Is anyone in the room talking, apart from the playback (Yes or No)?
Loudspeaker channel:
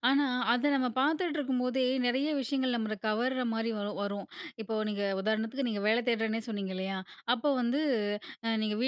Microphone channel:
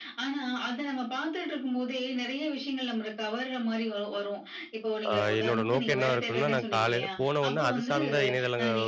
Yes